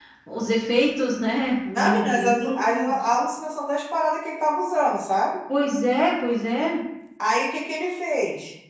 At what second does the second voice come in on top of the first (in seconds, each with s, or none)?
1.7 s